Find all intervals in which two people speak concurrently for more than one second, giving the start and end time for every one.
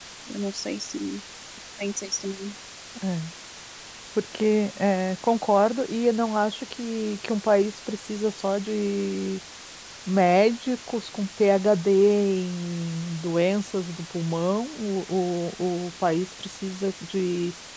none

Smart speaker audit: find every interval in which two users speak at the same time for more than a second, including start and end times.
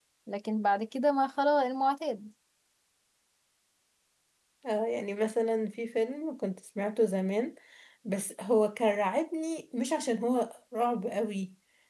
none

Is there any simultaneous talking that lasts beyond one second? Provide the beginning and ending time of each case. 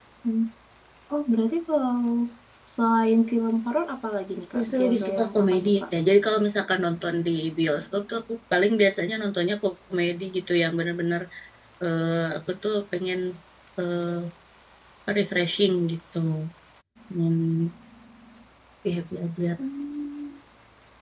4.5-5.8

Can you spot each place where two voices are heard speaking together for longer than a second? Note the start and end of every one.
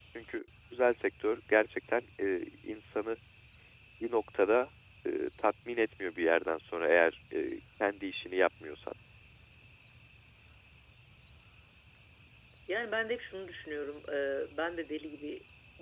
none

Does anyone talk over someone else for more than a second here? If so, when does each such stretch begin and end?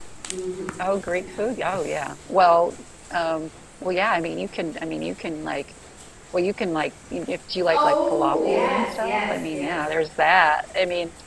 7.7-9.8

